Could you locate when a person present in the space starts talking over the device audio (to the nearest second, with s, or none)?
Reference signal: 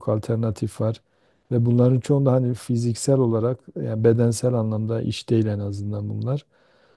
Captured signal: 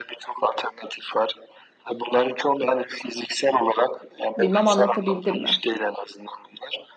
4 s